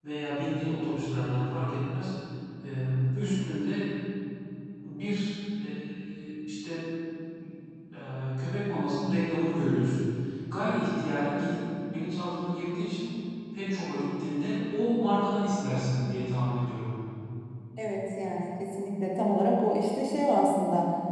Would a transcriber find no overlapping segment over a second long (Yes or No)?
Yes